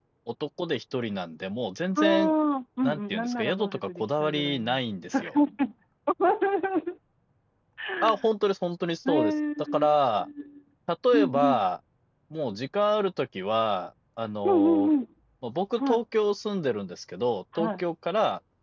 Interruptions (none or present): present